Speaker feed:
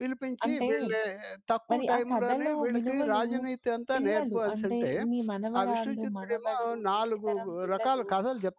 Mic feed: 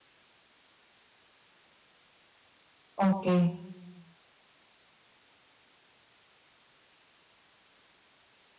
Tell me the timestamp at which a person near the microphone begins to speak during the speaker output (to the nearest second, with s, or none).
3 s